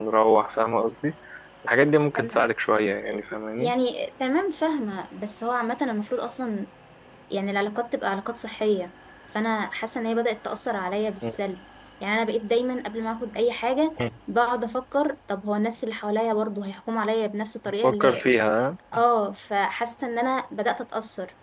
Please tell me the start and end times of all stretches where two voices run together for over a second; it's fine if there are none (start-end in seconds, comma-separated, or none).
none